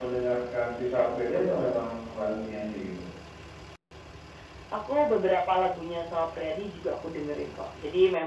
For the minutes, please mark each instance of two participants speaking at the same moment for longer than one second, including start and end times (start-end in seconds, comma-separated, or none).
none